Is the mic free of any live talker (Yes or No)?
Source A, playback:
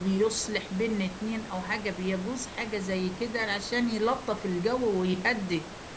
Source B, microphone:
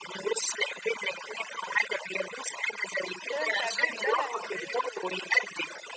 No